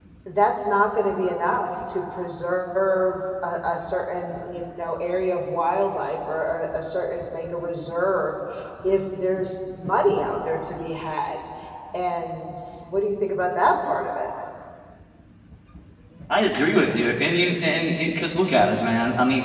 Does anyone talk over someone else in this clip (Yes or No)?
No